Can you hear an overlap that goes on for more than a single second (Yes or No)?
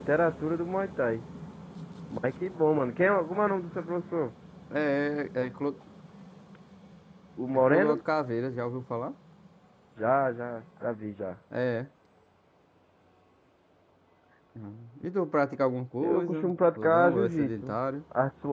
Yes